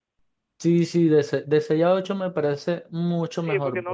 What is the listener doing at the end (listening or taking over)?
taking over